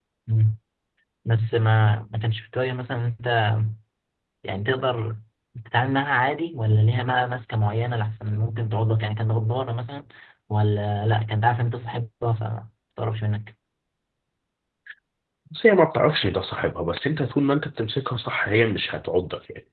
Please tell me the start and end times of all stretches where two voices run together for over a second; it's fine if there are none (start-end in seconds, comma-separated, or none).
none